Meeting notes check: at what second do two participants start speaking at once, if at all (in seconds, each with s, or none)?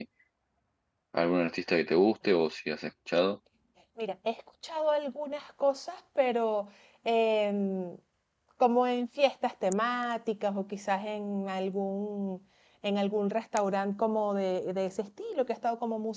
none